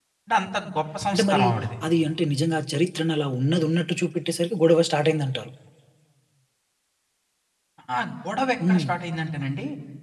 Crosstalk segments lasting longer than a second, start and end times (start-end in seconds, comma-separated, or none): none